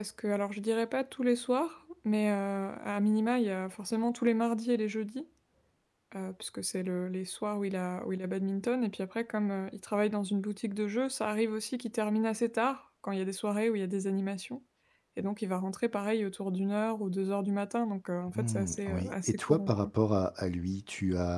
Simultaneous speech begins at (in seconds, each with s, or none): 18.3 s